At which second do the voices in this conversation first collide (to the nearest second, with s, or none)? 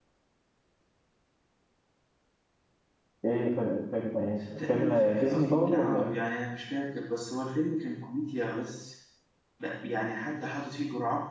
4 s